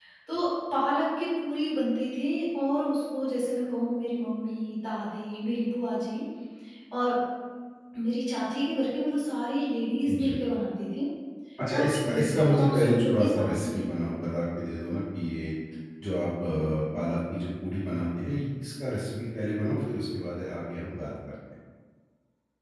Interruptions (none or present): present